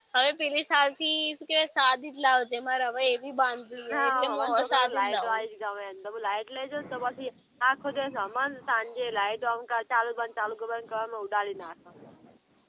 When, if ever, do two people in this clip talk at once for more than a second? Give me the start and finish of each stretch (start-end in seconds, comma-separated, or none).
3.9-5.4